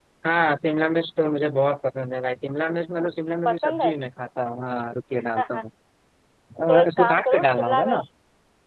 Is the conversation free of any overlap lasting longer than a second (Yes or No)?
No